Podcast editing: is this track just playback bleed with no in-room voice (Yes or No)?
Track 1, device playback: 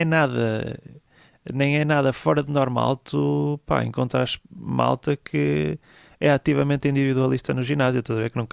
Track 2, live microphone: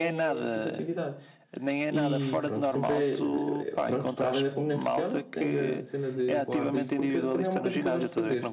No